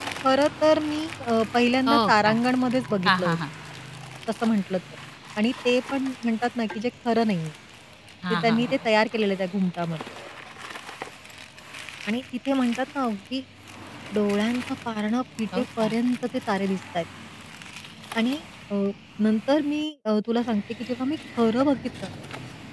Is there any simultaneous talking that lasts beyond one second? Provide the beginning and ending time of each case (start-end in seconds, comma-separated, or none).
none